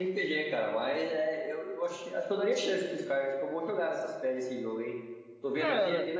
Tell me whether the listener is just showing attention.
No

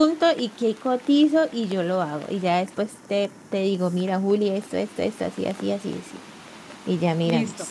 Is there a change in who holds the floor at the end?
Yes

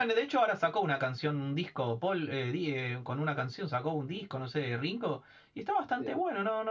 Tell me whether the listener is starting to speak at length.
No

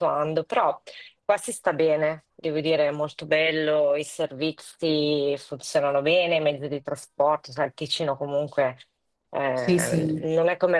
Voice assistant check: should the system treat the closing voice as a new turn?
No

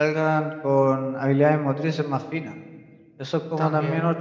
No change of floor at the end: Yes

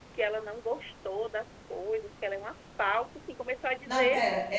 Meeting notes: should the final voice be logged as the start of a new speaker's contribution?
Yes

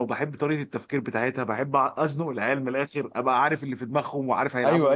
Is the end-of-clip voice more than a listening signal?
Yes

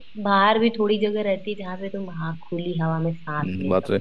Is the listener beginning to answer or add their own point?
Yes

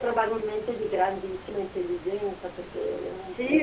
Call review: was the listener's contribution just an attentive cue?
No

